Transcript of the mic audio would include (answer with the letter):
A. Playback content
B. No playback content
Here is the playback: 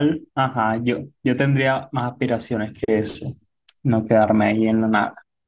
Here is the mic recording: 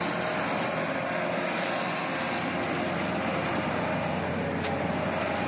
B